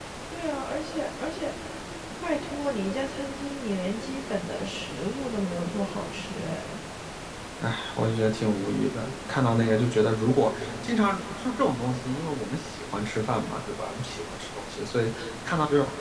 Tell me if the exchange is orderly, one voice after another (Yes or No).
Yes